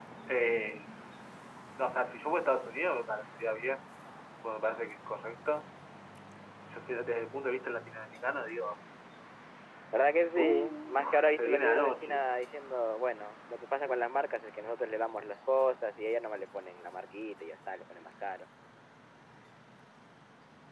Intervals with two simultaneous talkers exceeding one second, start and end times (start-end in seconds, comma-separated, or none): 10.3-12.2